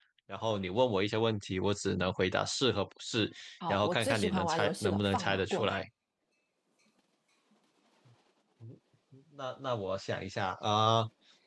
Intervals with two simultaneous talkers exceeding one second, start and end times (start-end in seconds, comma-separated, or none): 3.7-5.8